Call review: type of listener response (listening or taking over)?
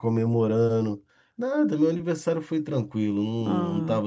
listening